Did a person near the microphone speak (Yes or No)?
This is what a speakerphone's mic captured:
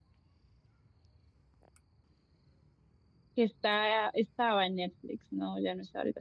Yes